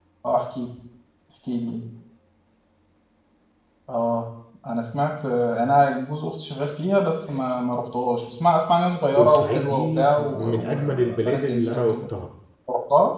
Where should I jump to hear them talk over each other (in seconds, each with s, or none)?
9.2 s